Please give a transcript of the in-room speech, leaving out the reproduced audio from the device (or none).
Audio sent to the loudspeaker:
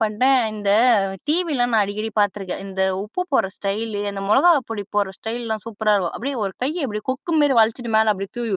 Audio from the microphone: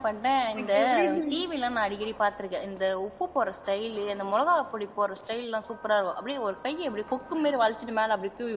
இதுக்கு எப்டின்னா,